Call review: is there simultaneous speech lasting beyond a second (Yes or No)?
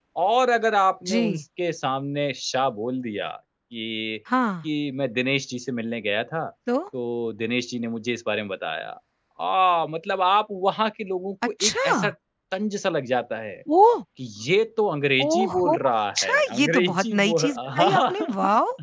Yes